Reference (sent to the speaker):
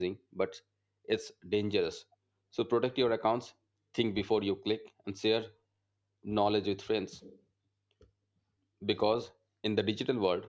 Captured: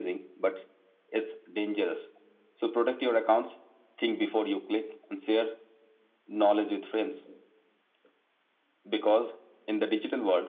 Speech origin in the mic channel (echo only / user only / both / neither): echo only